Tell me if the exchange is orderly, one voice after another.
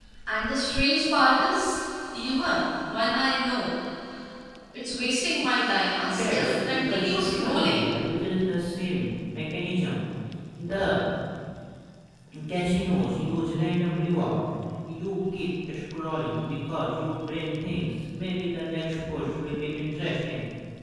No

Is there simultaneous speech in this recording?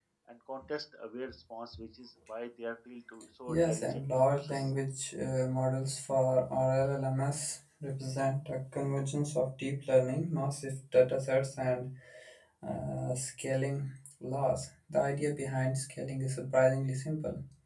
Yes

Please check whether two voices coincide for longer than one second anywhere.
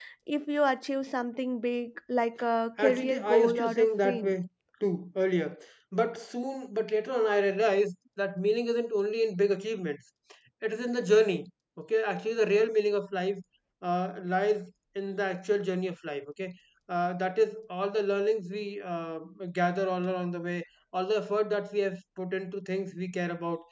Yes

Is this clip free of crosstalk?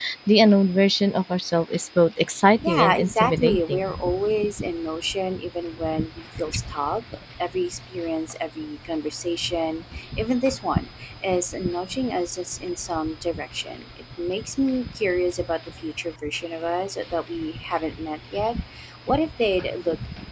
No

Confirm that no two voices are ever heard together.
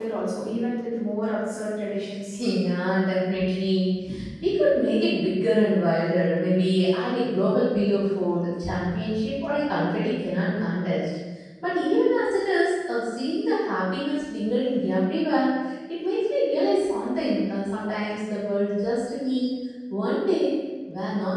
Yes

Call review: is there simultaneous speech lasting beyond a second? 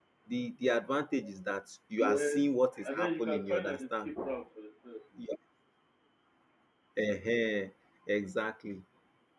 Yes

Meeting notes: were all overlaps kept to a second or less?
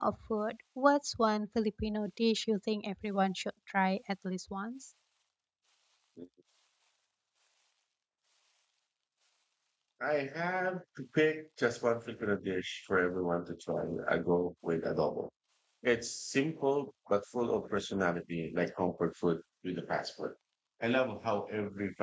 Yes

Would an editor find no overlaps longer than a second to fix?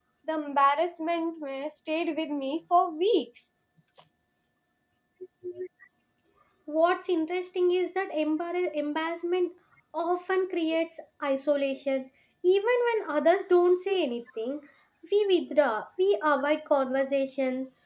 Yes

